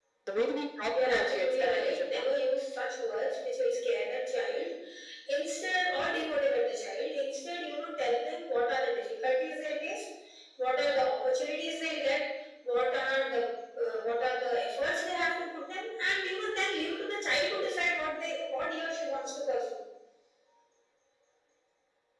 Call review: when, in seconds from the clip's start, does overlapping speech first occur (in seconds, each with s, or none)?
1.1 s